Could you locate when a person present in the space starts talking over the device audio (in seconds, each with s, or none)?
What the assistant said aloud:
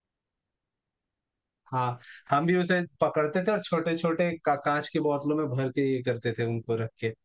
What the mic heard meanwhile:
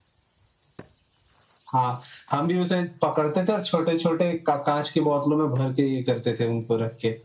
none